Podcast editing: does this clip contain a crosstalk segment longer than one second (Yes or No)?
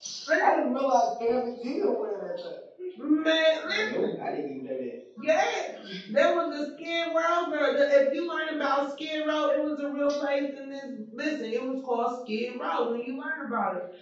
No